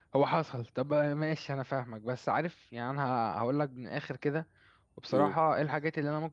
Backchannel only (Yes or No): Yes